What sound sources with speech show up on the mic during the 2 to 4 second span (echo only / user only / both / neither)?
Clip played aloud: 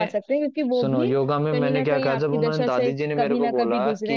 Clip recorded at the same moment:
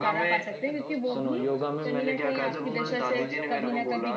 both